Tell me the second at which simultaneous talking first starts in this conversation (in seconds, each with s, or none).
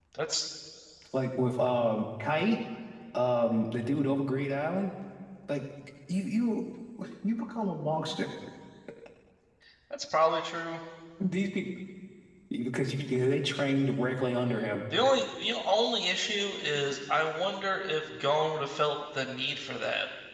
none